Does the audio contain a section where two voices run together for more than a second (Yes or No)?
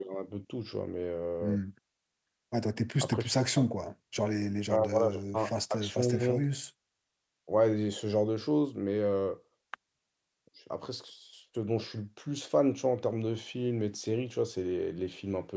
Yes